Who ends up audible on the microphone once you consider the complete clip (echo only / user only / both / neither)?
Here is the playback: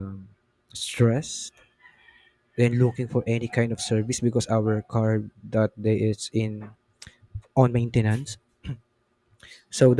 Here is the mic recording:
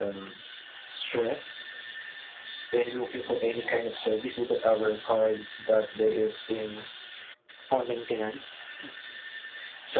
echo only